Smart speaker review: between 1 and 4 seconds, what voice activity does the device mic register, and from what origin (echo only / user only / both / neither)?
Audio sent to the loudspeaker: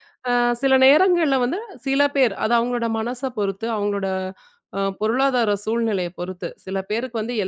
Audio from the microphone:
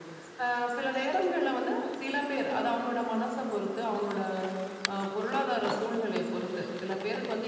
echo only